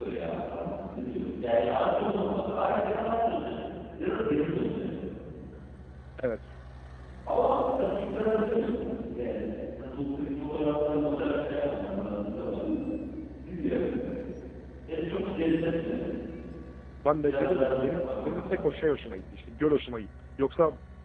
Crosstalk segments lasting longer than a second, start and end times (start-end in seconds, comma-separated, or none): 17.2-18.7